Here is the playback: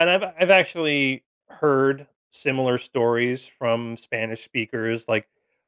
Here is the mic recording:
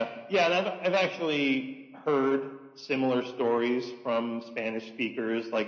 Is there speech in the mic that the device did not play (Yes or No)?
No